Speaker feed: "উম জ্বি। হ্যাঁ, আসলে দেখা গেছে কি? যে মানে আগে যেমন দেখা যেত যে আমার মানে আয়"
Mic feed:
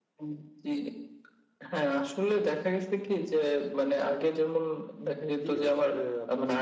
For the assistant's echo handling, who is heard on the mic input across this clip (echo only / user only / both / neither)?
both